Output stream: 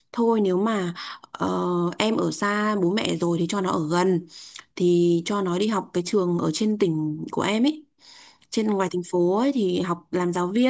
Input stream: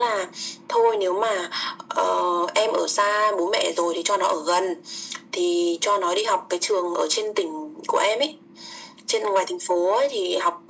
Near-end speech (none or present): none